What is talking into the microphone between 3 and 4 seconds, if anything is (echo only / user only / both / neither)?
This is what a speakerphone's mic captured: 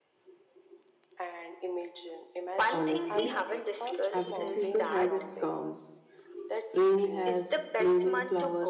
both